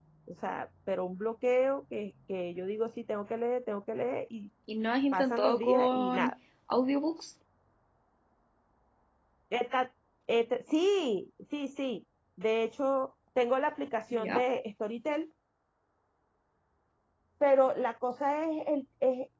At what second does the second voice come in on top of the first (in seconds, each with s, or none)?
5.1 s